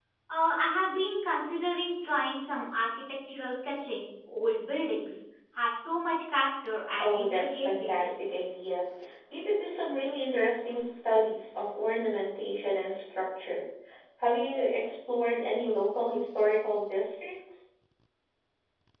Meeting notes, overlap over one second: present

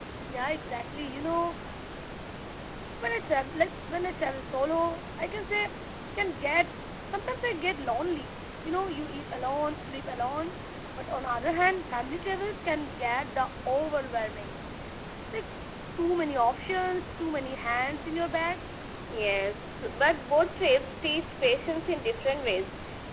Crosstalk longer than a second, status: none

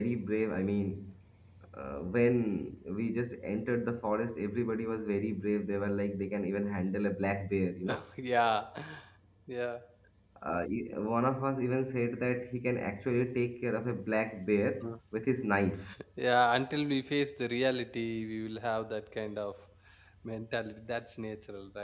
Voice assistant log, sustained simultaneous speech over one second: none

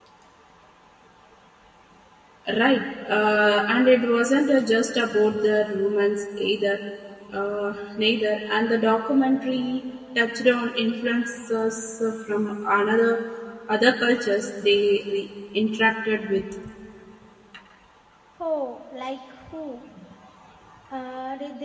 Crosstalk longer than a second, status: none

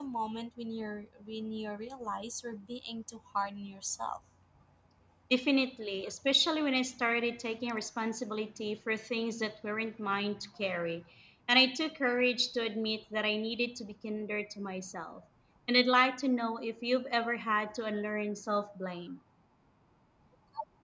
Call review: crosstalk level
none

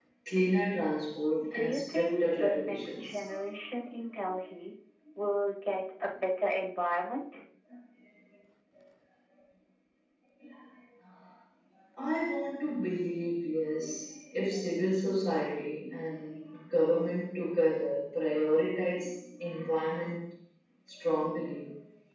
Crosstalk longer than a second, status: present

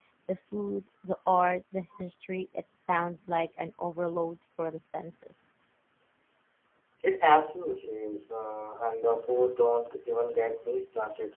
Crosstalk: none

